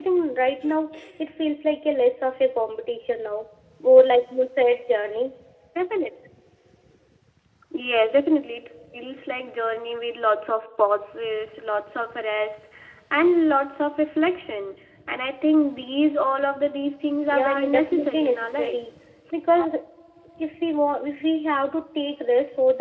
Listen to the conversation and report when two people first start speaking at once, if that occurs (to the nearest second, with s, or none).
17 s